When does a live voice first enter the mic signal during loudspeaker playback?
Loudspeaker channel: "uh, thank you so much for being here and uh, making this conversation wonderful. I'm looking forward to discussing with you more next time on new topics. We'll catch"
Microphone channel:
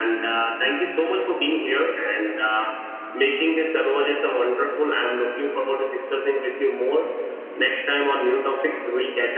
none

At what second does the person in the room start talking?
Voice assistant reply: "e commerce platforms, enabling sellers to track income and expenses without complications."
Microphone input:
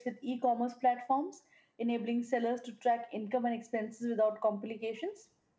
none

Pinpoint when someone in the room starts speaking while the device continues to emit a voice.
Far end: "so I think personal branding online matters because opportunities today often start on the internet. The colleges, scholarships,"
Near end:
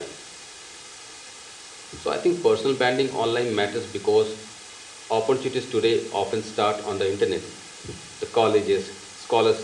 none

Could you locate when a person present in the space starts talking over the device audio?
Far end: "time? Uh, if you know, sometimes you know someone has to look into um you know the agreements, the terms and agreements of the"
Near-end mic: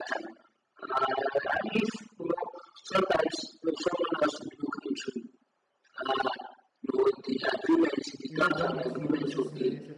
8.3 s

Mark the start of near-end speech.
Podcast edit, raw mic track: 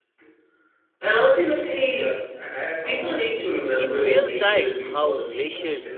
3.8 s

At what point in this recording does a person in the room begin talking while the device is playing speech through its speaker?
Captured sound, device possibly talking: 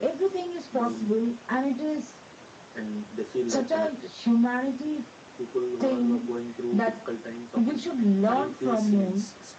none

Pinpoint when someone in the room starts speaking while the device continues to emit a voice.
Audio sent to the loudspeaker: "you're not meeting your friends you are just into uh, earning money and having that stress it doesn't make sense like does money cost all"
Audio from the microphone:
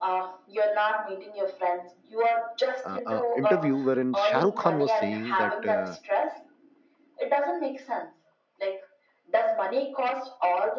2.9 s

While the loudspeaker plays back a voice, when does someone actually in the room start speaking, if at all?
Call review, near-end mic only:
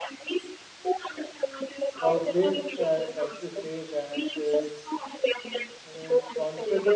1.9 s

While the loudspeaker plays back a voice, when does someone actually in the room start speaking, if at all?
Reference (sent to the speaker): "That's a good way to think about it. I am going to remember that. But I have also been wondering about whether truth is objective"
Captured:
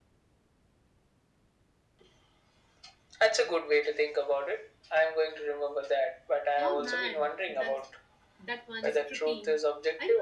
6.6 s

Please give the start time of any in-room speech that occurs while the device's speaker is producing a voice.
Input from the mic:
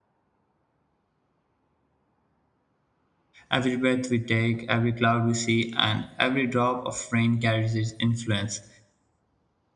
3.5 s

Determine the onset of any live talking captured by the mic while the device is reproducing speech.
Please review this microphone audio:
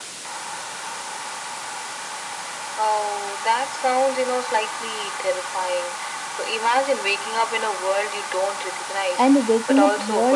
9.2 s

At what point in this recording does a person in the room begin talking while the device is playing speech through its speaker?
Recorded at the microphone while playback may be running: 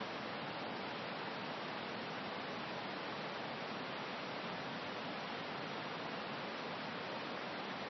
none

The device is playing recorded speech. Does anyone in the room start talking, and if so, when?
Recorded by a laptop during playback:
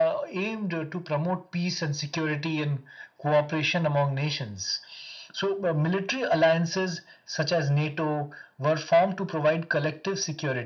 none

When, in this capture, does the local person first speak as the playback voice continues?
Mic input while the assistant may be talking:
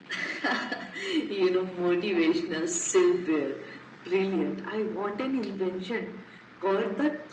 none

